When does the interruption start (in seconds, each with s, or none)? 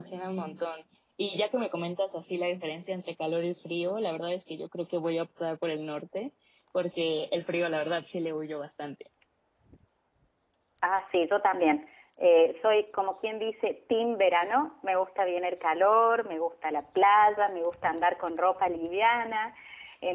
none